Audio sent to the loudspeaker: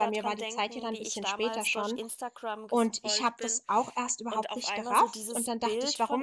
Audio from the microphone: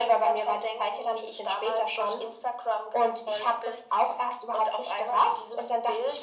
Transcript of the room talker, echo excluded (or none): none